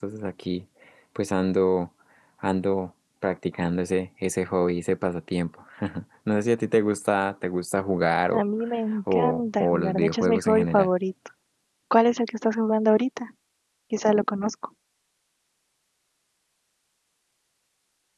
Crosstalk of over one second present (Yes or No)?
Yes